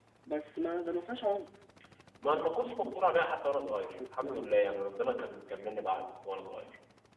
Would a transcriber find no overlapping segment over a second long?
Yes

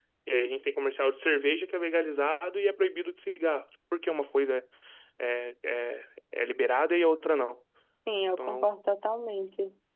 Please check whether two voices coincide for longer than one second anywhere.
No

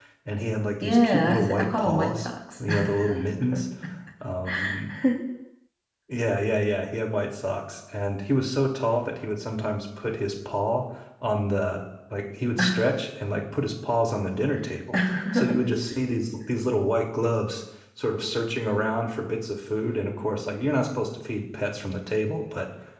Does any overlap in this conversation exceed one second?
Yes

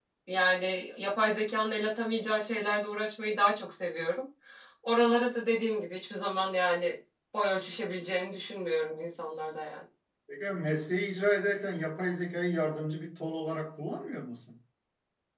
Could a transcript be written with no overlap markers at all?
Yes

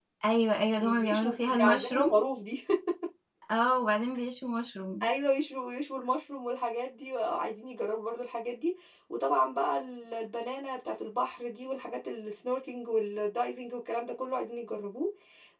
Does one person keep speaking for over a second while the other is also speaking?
Yes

